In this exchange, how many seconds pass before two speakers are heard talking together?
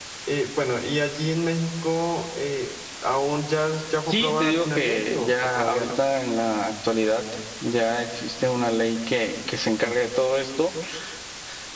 4 s

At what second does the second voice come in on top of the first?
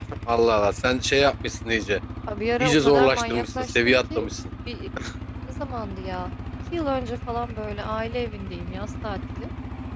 3 s

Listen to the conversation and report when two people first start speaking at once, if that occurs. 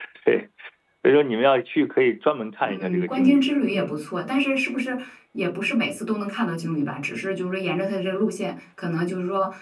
3 s

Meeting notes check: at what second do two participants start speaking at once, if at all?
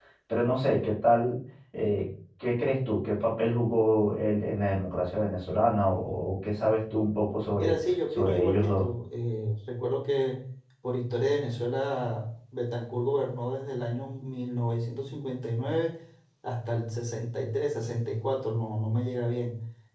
8 s

